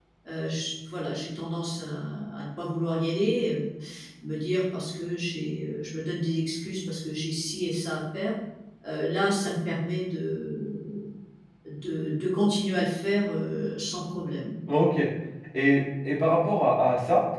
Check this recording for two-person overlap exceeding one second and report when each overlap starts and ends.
none

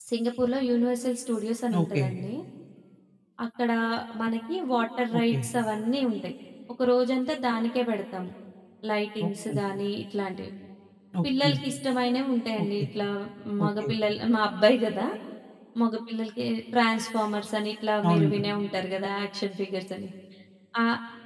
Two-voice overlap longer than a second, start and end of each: none

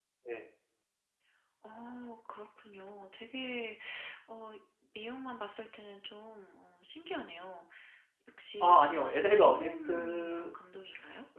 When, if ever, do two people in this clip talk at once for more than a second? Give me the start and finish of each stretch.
8.6-10.5

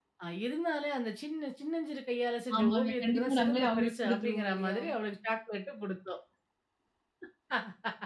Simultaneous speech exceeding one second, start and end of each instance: 2.6-4.8

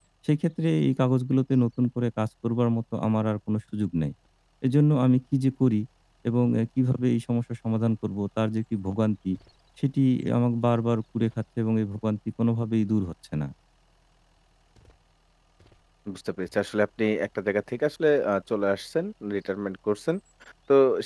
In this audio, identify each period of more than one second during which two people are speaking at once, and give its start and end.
none

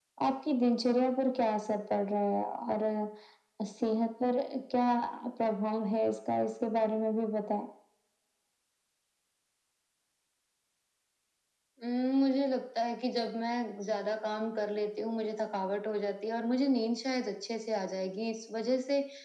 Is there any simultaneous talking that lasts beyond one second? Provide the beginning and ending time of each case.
none

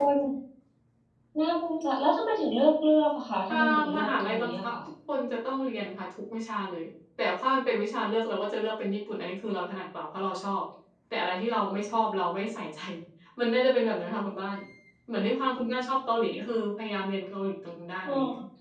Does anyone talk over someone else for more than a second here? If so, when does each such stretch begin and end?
3.5-4.7

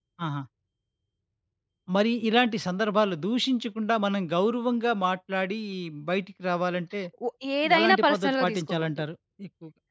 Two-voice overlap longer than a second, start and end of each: 7.8-9.0

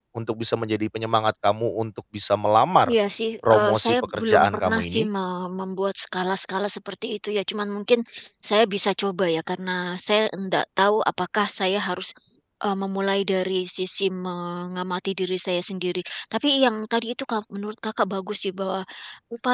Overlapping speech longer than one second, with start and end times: 3.5-5.0

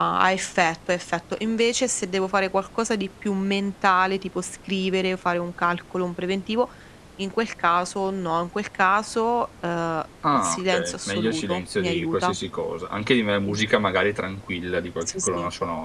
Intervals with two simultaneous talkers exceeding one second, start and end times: 10.3-12.3

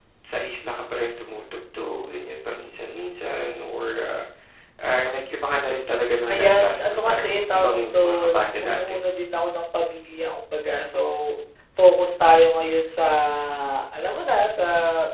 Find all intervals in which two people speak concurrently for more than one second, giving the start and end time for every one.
6.3-9.0

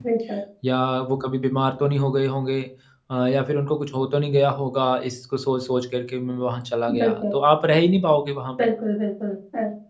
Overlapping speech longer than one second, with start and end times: none

